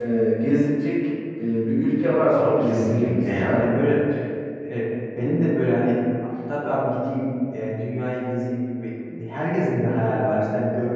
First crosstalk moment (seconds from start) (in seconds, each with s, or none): 2.3 s